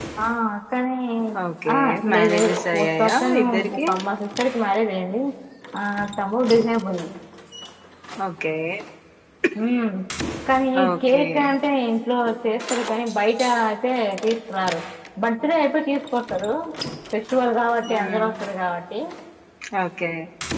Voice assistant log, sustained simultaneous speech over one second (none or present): present